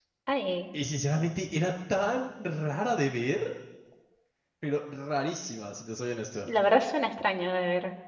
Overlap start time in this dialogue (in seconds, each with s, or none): none